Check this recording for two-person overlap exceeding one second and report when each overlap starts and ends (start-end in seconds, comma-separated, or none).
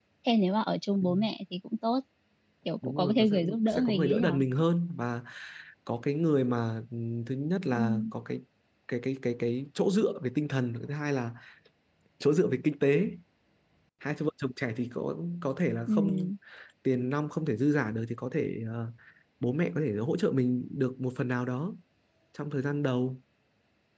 2.8-4.4